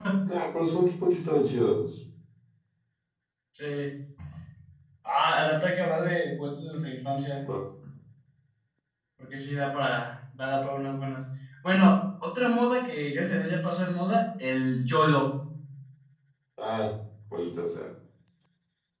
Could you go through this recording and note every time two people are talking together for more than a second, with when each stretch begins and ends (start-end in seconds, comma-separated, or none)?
none